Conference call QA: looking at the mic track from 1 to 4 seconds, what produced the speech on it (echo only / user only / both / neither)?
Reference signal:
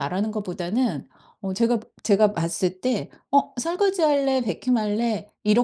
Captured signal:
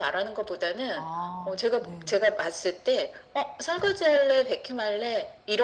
both